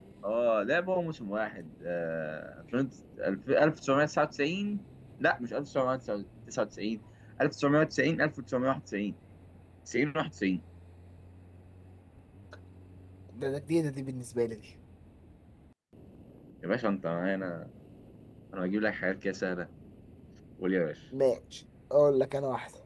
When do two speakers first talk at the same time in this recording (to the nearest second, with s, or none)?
none